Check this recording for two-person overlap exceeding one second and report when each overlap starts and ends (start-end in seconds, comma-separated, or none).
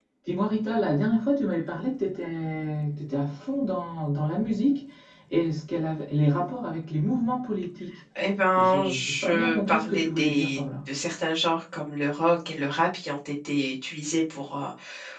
8.6-10.6